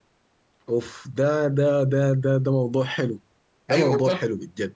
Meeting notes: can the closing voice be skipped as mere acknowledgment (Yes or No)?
No